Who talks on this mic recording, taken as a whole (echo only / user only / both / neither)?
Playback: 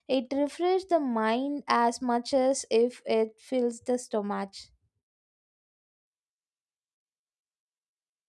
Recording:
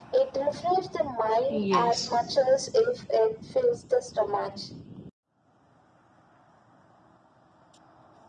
both